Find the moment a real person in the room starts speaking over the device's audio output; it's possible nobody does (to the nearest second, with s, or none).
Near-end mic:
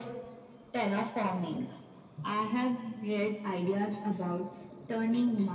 none